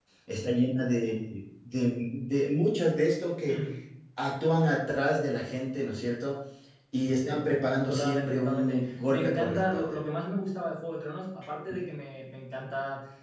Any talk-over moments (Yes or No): Yes